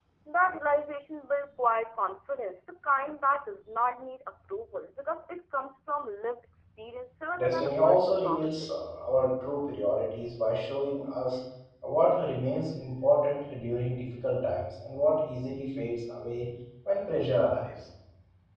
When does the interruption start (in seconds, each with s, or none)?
7.4 s